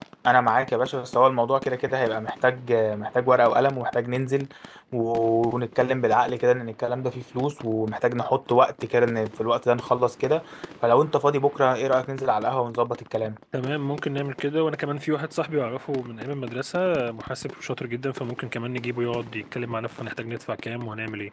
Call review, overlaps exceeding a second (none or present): none